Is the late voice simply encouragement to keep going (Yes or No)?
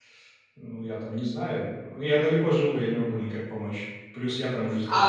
No